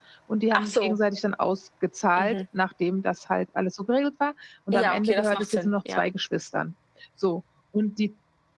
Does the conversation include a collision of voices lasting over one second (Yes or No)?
Yes